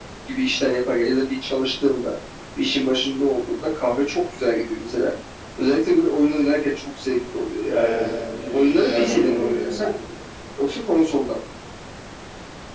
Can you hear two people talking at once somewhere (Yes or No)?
Yes